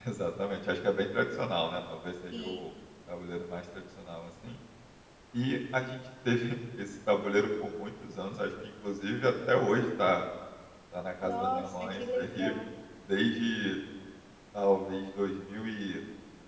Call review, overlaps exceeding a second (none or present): present